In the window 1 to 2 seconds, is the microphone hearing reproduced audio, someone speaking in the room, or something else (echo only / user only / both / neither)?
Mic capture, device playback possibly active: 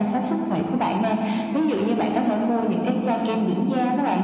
echo only